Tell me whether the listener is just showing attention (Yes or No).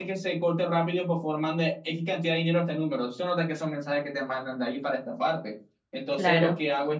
Yes